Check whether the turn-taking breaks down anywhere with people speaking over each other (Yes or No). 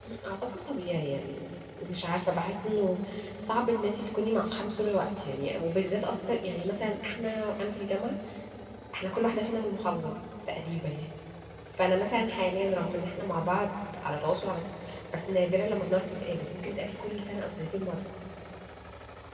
No